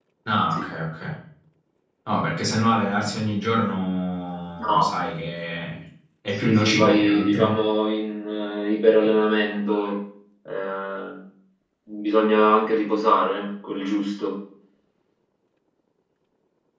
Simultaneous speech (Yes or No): Yes